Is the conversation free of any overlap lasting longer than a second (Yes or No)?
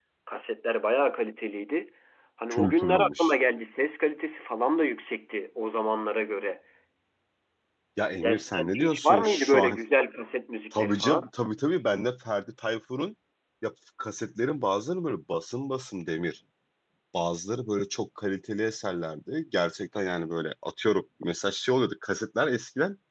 No